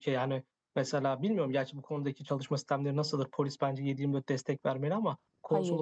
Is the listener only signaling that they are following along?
Yes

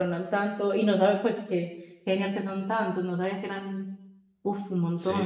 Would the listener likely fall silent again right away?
No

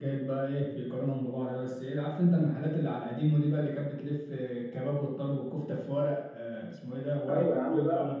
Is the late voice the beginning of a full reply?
Yes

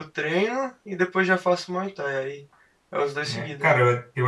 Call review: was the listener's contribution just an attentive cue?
No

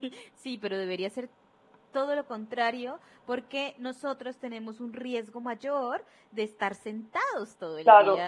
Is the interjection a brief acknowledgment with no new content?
No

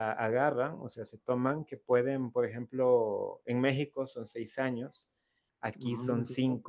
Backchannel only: Yes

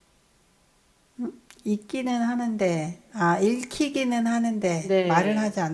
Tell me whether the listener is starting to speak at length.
Yes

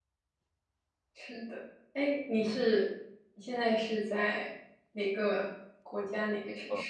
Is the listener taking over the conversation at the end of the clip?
Yes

